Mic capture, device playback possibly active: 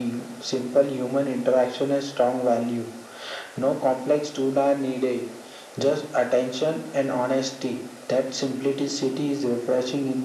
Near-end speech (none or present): none